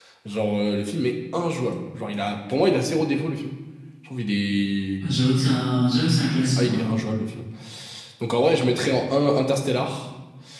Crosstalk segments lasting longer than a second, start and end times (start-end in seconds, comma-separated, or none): none